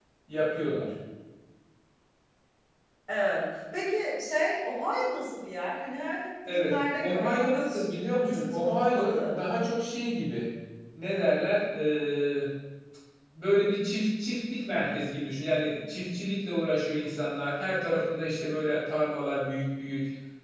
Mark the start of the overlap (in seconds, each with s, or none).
6.5 s